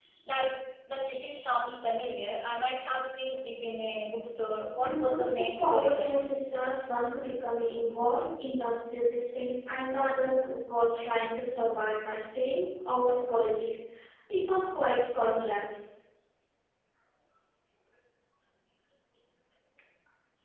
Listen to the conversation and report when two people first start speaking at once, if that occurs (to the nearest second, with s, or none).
5 s